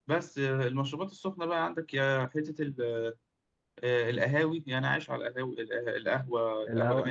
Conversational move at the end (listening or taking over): taking over